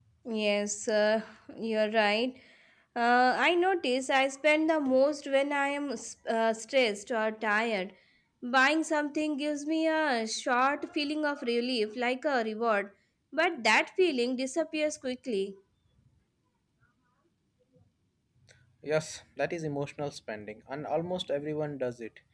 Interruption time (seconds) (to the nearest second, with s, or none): none